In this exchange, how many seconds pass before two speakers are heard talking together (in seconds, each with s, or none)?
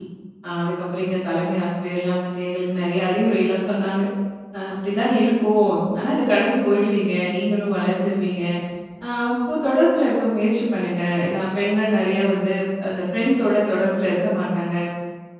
none